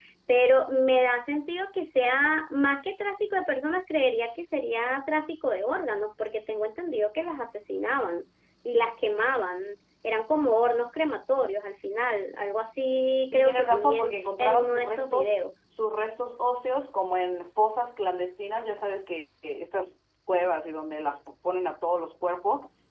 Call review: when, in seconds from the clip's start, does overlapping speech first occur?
13.3 s

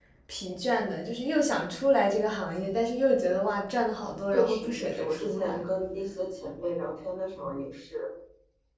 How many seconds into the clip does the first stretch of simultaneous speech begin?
4.3 s

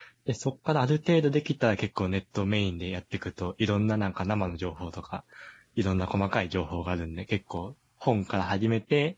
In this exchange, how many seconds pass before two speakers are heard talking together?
none

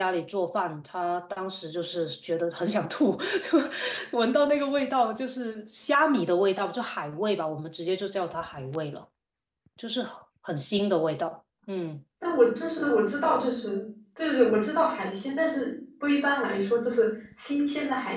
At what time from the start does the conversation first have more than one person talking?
none

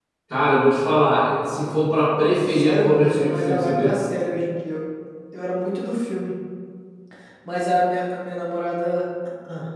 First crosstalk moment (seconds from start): 2.4 s

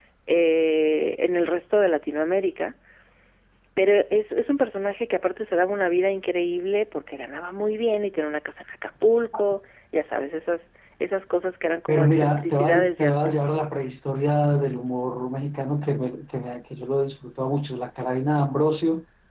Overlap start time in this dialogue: 11.9 s

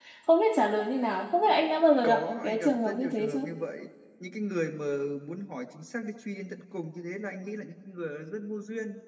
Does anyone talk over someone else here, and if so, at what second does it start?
2.0 s

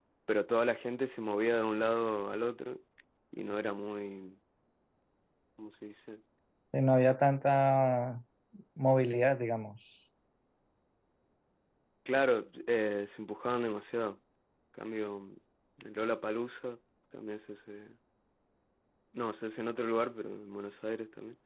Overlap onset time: none

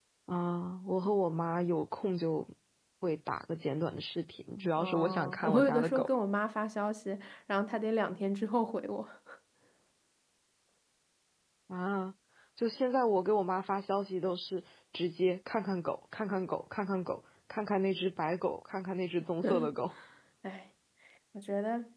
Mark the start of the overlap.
4.8 s

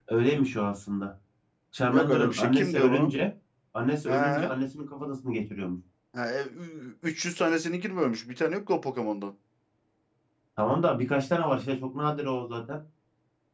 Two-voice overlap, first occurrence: 1.9 s

